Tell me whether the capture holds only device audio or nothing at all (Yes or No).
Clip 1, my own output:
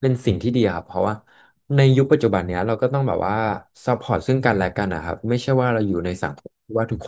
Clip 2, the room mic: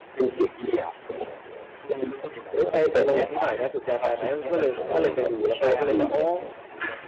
No